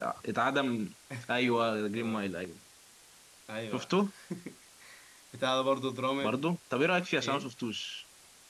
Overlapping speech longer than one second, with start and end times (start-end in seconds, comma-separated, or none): none